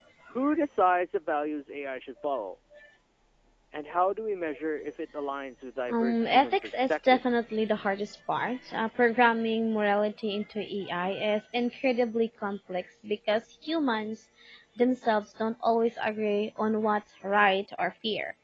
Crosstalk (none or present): present